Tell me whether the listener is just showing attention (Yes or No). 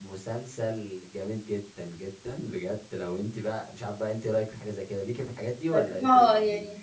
No